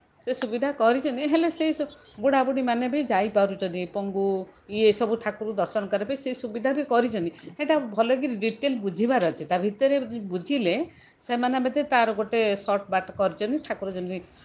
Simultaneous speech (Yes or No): No